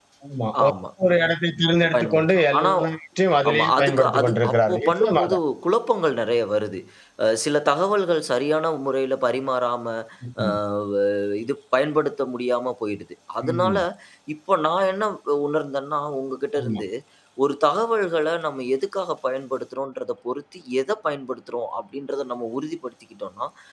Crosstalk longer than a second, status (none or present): present